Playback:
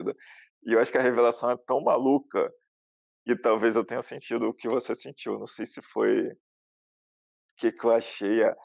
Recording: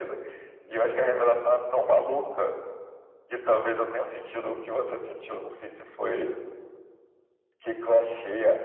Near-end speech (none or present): none